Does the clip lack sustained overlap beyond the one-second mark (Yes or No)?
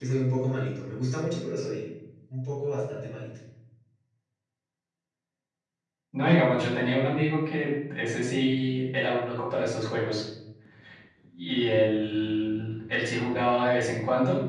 Yes